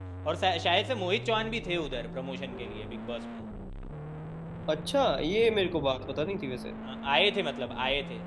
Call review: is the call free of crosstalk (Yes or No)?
Yes